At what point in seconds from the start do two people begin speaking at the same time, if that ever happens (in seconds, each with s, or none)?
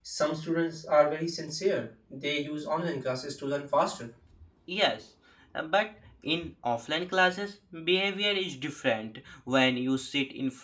none